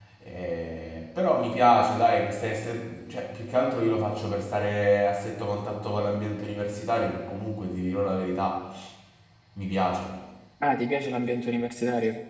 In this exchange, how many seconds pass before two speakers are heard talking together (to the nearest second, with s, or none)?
none